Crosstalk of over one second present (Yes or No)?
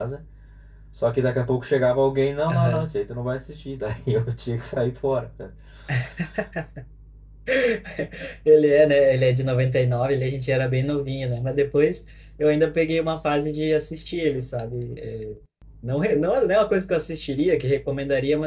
No